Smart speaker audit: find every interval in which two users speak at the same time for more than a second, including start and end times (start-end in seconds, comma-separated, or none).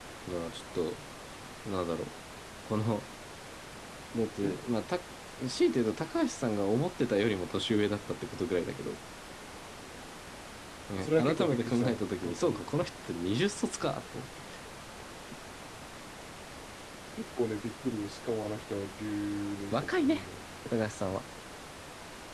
11.0-12.6